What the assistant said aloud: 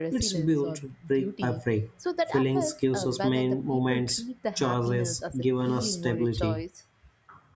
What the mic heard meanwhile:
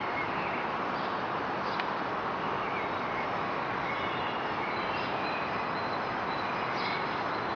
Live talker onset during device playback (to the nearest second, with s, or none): none